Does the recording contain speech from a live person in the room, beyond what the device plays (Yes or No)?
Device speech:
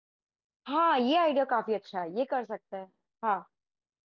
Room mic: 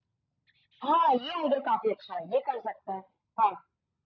No